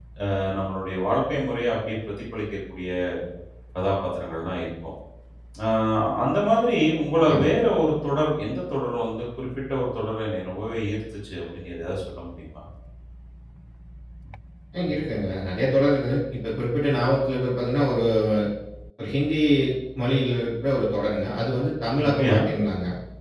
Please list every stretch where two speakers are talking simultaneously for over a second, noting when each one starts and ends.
none

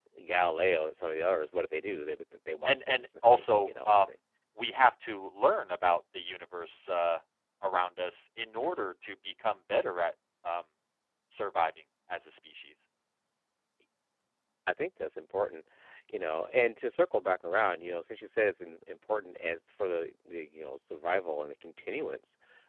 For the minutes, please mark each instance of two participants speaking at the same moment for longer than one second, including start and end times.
2.6-3.9

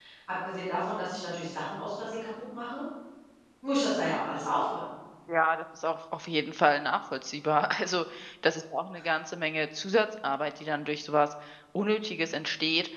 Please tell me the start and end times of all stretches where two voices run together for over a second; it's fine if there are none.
none

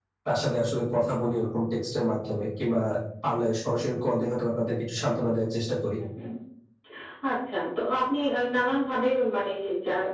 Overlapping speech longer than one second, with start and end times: none

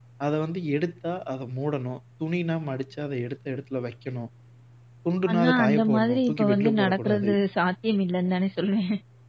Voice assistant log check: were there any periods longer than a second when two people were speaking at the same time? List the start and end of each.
5.3-7.3

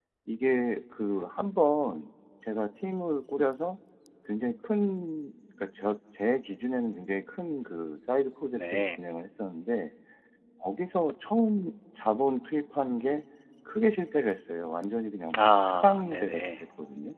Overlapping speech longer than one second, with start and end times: 15.4-16.6

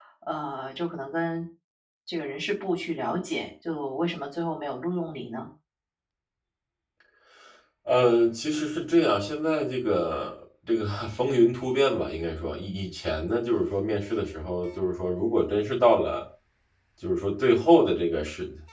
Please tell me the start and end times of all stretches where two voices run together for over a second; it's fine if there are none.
none

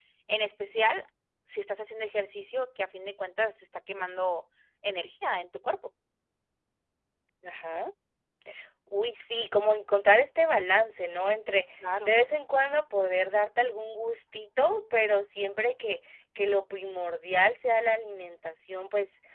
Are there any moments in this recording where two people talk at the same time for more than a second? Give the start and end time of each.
none

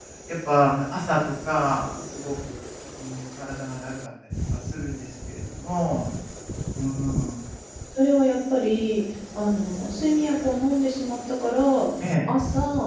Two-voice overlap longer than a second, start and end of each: none

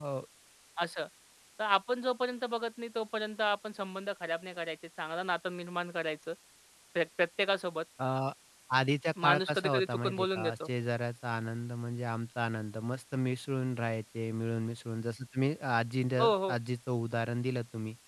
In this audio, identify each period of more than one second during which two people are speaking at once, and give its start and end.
9.2-10.7

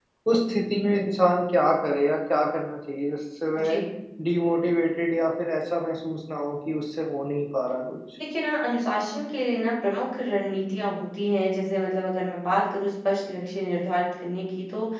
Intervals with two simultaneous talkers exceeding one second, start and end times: none

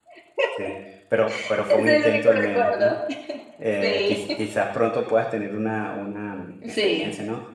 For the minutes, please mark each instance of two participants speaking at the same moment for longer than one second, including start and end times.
1.7-2.9

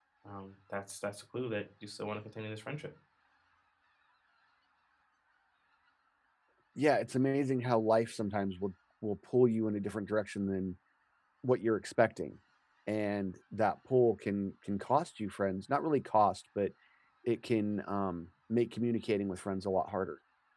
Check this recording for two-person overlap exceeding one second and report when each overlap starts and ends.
none

